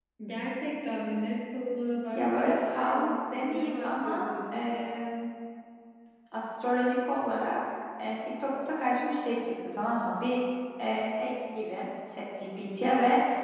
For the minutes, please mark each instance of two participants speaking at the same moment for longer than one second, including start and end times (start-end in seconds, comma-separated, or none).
2.1-4.6